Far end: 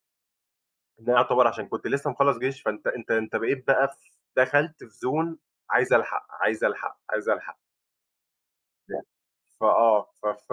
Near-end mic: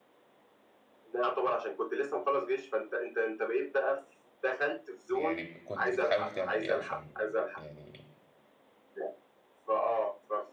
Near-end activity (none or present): present